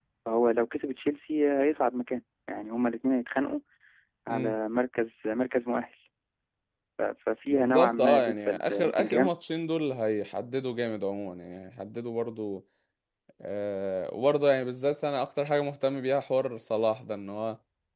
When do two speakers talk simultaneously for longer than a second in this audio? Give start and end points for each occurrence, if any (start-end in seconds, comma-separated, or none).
7.5-9.3